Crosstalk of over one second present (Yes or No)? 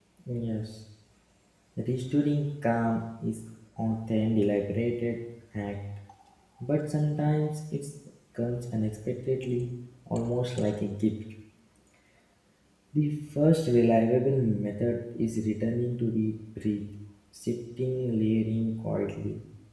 No